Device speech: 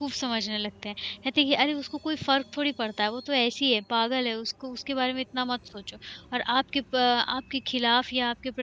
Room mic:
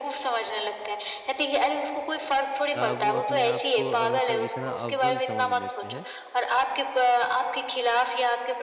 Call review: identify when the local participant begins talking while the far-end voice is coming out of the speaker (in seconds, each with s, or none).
2.8 s